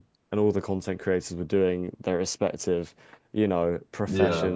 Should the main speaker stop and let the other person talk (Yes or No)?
No